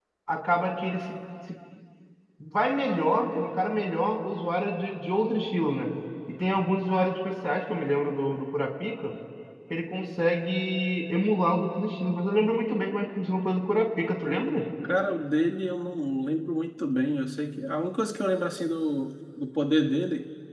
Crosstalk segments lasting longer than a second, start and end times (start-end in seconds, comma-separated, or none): none